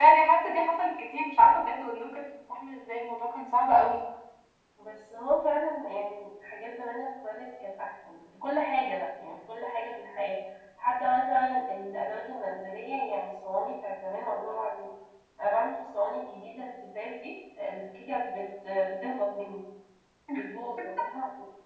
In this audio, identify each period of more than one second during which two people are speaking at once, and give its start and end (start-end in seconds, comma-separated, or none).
none